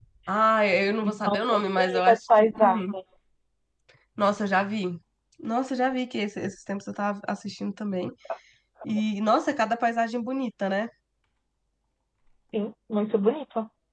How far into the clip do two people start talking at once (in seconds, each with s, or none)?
1.0 s